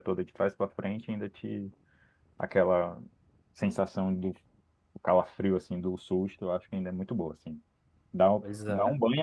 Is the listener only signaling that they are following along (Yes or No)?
Yes